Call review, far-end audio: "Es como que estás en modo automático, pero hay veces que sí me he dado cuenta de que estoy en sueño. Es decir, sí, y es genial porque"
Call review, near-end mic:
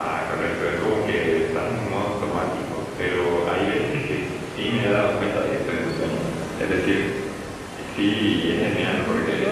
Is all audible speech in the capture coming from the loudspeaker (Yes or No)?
No